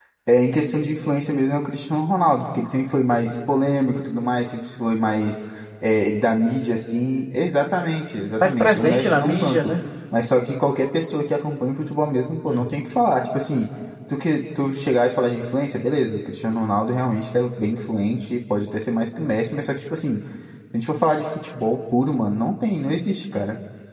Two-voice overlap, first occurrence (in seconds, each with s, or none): 8.4 s